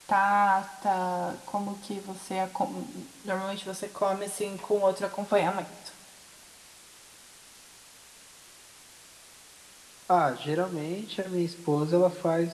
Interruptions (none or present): none